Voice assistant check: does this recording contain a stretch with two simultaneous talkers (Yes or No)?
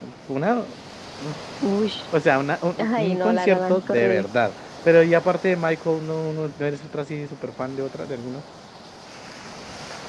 Yes